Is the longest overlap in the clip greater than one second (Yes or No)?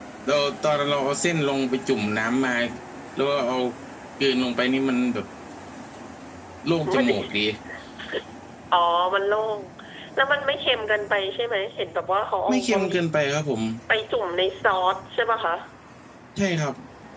No